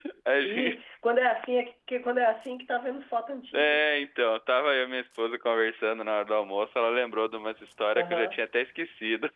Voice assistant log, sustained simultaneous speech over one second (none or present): none